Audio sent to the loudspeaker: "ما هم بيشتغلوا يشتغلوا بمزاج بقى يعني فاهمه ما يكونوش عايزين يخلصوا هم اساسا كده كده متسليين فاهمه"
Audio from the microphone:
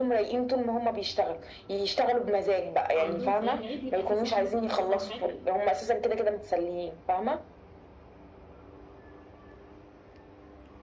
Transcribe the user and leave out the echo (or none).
عندهم في ايام العيد بيبقى في زحمه مثلا في الشغل او حاجه